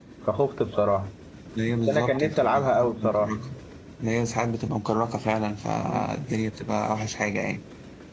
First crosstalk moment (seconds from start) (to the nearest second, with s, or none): 2 s